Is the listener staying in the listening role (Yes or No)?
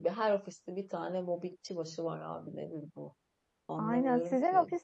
No